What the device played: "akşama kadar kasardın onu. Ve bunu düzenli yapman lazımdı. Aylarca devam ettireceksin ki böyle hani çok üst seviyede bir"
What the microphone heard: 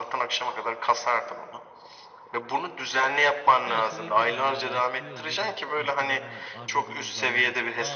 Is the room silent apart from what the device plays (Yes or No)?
No